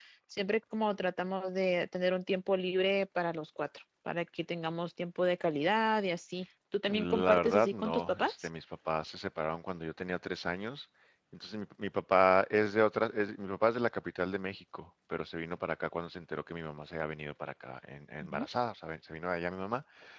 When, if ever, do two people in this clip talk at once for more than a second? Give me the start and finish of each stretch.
6.9-8.5

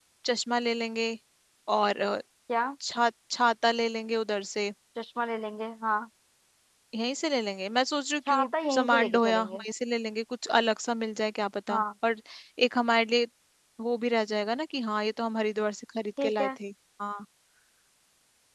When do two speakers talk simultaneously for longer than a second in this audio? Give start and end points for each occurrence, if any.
8.3-9.6

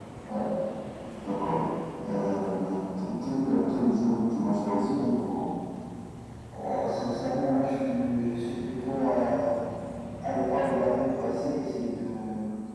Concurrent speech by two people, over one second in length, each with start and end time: none

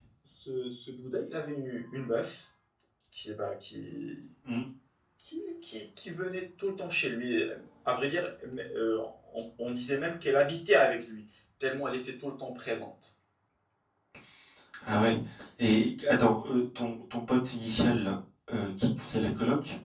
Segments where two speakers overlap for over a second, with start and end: none

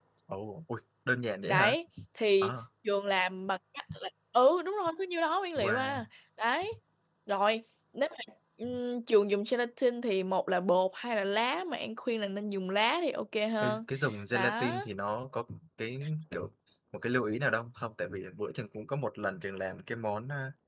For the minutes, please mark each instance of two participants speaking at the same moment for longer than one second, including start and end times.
none

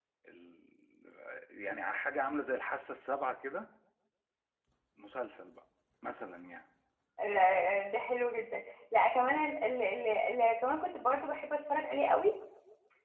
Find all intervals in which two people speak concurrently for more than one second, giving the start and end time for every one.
none

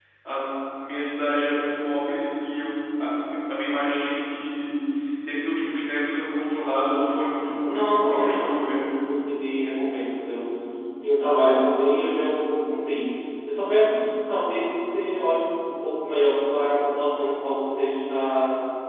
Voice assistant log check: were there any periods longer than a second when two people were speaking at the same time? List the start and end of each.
7.3-8.9

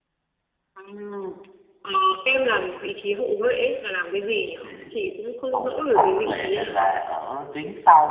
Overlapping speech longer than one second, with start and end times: 5.5-7.0

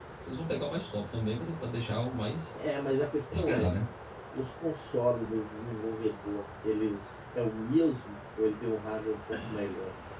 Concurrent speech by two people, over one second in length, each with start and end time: none

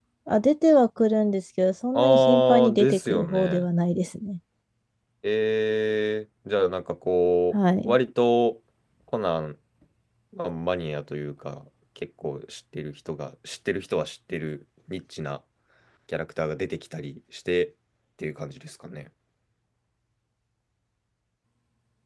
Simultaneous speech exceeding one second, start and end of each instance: 1.9-3.6

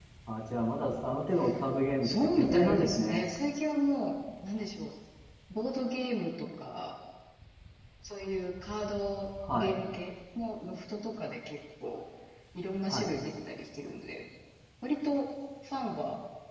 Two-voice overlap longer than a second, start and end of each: 2.0-3.2

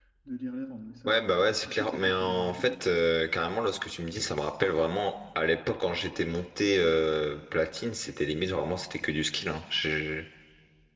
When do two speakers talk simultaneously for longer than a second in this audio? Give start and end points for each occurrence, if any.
1.1-2.7

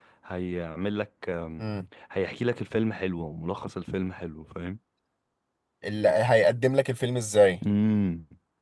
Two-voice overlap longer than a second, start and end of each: none

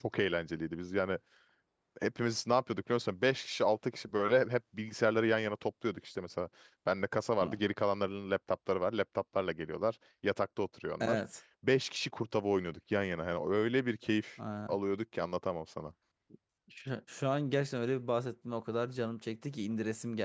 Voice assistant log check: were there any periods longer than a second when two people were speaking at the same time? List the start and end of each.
none

